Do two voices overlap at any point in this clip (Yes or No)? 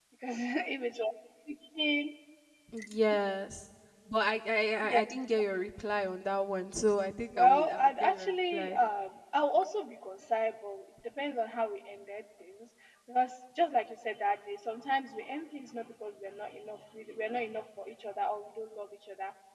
Yes